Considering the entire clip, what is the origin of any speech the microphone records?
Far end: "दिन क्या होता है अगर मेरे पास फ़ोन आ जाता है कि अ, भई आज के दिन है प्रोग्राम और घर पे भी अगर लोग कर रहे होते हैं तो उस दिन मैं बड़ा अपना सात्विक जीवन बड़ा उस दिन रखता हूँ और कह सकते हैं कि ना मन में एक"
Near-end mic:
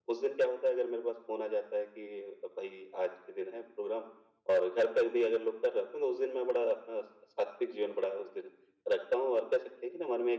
echo only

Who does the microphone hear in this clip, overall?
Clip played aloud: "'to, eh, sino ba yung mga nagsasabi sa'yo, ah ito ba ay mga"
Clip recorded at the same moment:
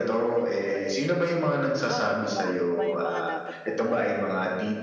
both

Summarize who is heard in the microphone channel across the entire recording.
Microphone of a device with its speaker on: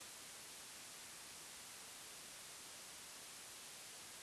neither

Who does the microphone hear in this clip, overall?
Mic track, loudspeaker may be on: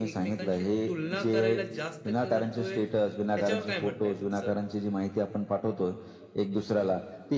both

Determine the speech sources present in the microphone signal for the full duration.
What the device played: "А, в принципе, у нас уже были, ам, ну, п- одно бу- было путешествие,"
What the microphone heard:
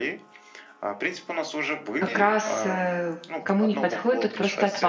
both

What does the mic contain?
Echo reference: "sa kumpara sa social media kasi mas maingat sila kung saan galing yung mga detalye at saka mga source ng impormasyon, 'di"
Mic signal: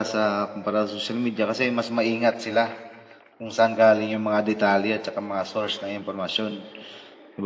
echo only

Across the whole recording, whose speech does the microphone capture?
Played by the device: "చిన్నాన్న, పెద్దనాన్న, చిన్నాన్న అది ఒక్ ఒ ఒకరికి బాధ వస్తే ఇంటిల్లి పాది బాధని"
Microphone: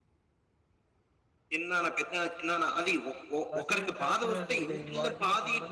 both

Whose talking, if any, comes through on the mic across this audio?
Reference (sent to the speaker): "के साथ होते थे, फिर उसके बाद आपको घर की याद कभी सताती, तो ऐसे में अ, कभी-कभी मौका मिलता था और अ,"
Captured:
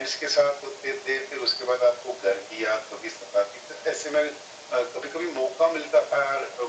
echo only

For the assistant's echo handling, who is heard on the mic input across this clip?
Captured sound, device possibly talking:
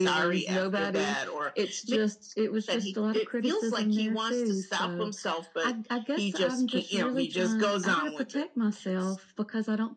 echo only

